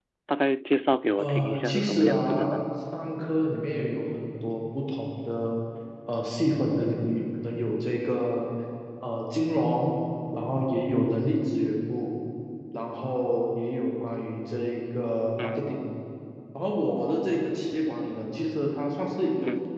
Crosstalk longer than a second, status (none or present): present